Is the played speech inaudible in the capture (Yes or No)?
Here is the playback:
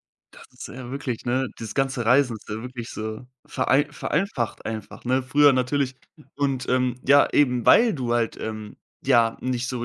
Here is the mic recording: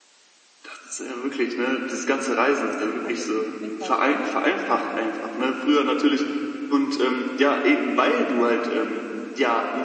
No